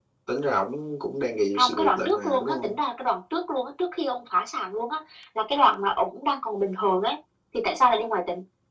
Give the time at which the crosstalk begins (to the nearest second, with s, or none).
2 s